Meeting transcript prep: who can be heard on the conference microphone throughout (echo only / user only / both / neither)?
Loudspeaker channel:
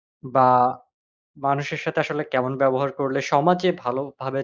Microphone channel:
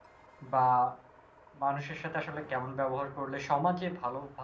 echo only